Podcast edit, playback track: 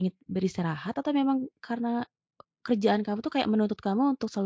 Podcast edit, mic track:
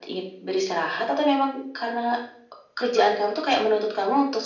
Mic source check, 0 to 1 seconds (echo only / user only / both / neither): echo only